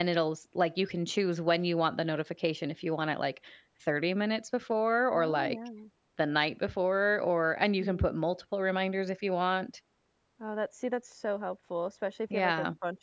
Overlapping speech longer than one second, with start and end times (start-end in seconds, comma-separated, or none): none